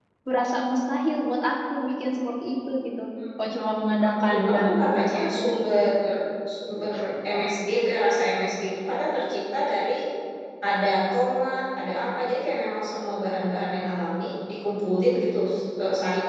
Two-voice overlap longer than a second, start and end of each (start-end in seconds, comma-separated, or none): 4.2-5.4